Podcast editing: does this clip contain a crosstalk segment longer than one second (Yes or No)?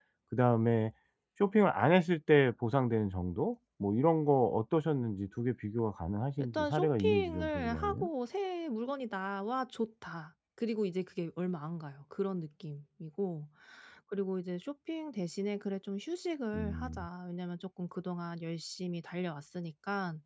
Yes